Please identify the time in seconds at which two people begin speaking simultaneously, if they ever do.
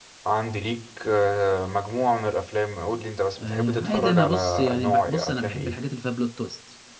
3.4 s

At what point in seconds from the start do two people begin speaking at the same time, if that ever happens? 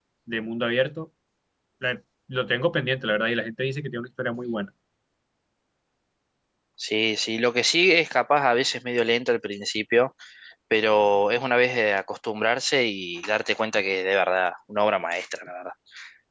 none

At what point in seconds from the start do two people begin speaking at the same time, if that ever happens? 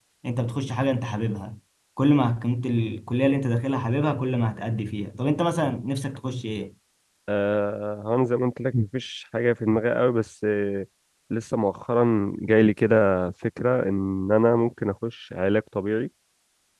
none

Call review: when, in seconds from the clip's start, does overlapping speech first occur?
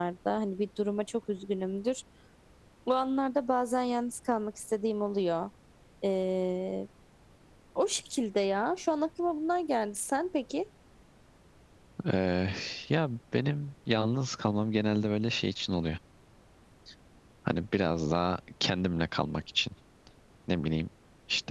none

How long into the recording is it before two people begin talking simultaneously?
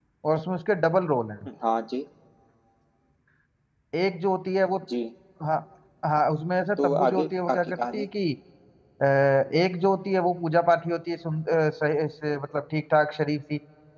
6.8 s

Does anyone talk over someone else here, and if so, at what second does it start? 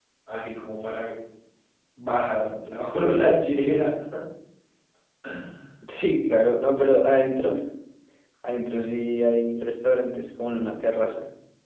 none

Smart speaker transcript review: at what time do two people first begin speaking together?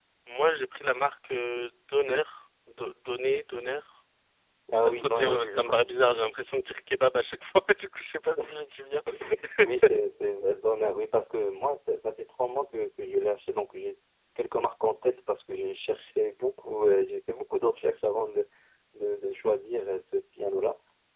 4.8 s

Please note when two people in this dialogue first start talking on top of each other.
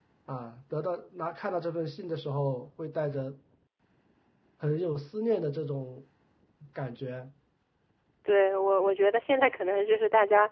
none

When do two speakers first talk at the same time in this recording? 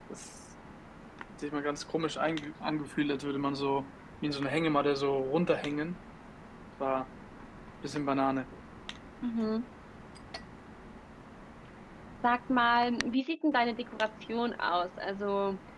none

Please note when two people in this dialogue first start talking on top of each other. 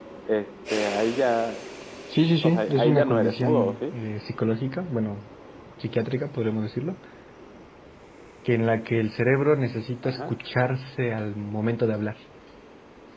2.4 s

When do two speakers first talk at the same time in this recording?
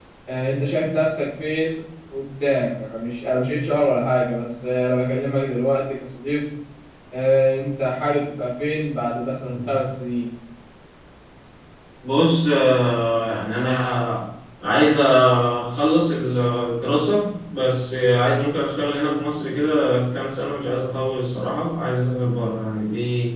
none

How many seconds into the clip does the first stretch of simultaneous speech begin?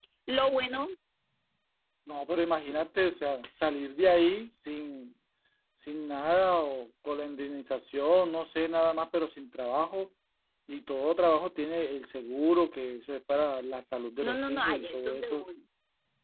14.2 s

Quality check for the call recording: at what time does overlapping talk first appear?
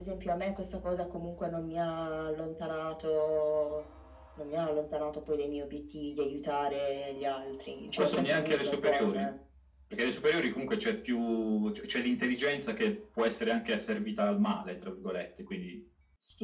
8.0 s

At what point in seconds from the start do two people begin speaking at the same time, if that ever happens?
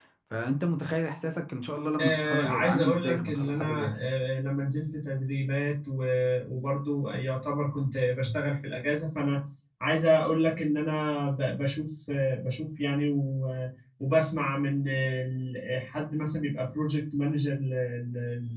2.0 s

